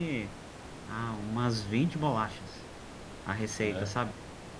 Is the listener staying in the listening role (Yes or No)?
Yes